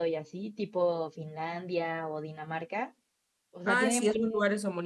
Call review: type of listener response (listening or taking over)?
taking over